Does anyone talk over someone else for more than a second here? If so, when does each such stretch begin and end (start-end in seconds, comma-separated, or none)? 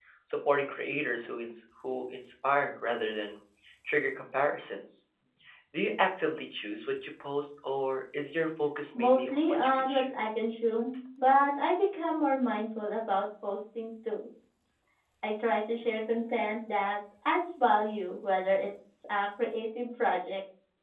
9.0-10.2